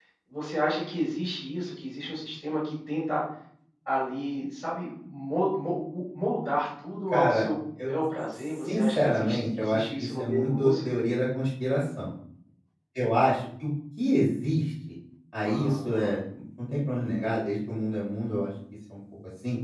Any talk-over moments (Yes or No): Yes